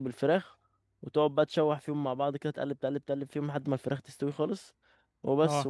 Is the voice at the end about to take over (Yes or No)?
No